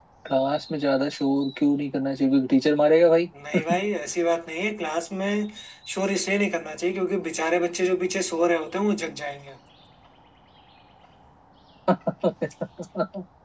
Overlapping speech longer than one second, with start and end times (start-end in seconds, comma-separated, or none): none